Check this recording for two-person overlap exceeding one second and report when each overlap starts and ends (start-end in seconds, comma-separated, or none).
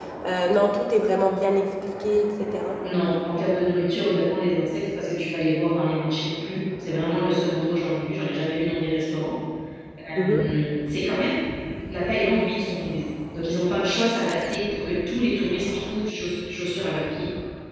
none